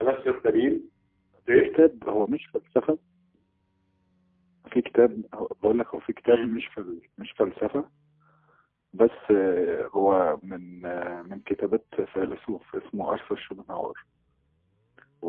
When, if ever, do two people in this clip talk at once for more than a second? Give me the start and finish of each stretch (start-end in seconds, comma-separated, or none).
none